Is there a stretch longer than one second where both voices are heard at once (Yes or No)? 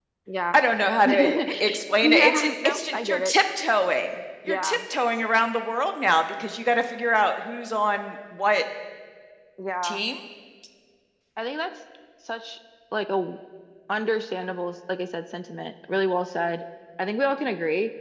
Yes